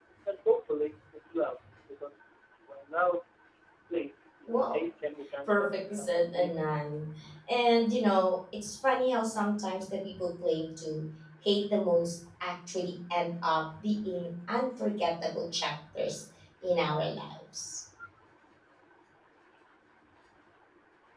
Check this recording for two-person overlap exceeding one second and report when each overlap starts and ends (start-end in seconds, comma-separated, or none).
5.5-6.7